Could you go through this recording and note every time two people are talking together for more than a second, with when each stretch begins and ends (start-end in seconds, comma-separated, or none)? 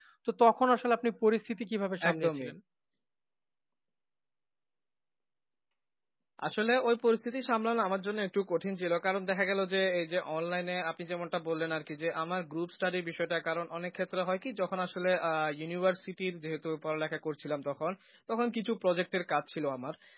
none